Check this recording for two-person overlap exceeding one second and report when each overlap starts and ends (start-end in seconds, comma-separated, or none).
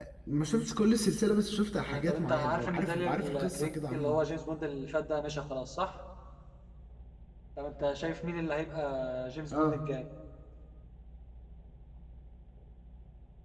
1.9-4.2